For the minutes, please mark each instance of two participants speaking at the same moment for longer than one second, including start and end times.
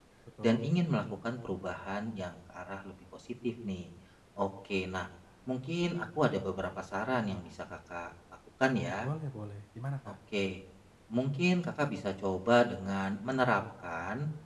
none

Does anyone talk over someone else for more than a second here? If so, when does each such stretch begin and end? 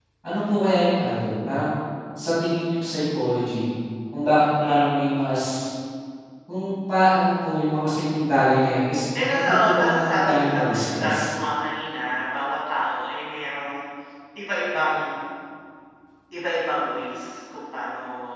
9.3-11.3

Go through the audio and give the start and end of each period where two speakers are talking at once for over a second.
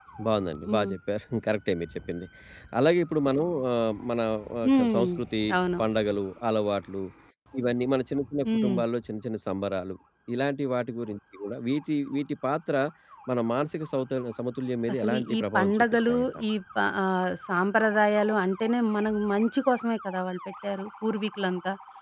14.9-16.3

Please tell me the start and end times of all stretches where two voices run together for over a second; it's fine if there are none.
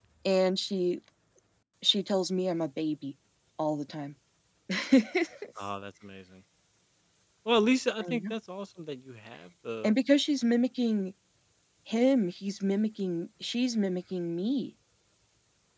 none

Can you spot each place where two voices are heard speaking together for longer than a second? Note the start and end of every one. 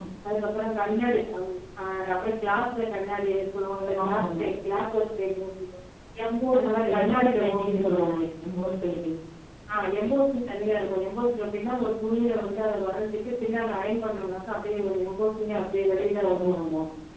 6.6-8.0

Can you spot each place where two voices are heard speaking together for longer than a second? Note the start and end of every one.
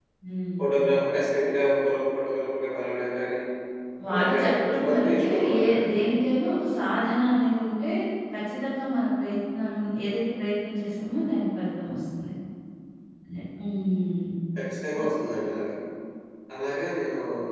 4.1-5.8

